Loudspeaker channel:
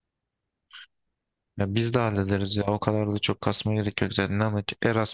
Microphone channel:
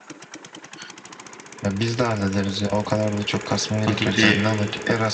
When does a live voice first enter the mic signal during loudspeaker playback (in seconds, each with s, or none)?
3.9 s